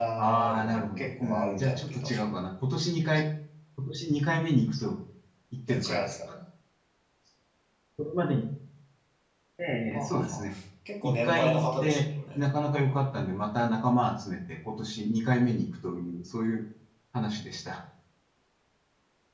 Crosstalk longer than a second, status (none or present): present